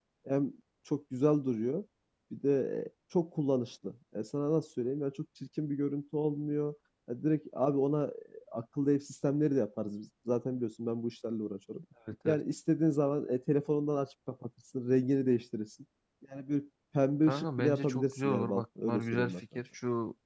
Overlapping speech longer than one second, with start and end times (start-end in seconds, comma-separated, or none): 17.3-19.4